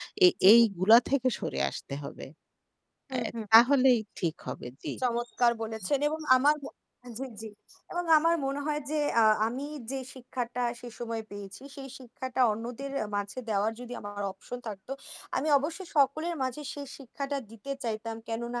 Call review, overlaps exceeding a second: none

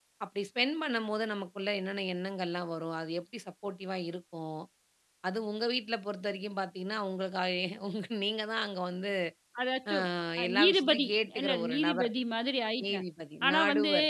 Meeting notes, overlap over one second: present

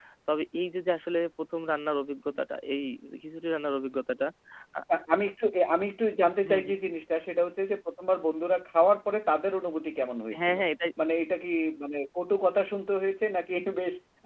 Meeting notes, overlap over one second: none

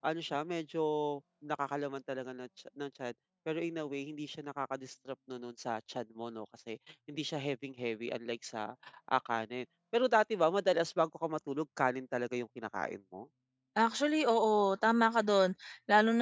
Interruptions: none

